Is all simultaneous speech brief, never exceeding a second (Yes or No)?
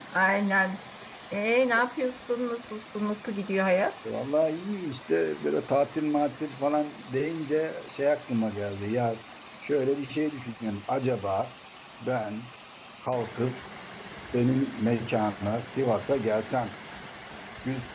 Yes